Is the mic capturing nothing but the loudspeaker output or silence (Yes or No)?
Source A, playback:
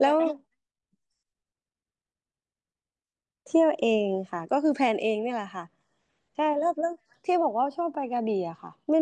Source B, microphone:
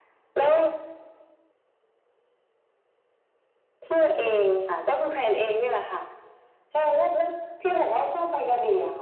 Yes